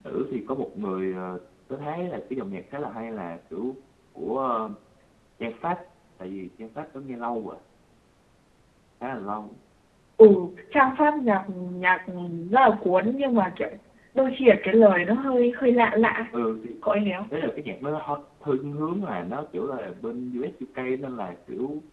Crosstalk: none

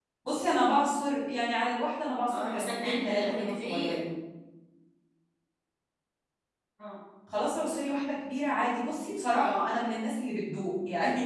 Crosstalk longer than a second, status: present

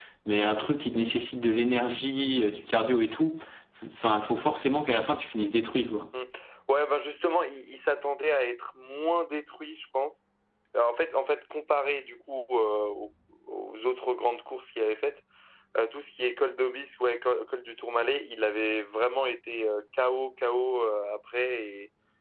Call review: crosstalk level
none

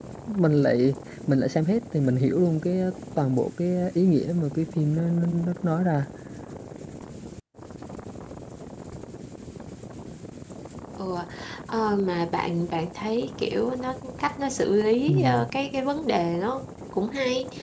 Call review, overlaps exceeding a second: none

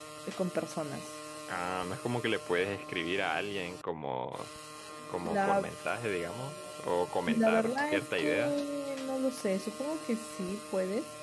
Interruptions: present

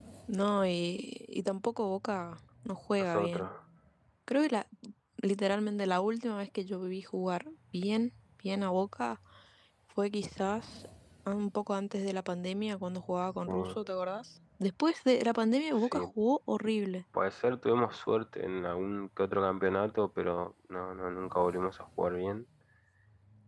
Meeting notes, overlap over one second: none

